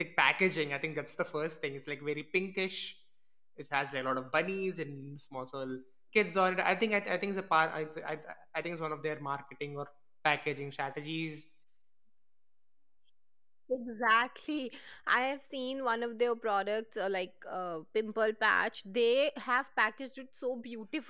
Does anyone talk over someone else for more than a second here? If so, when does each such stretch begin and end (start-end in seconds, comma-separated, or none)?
none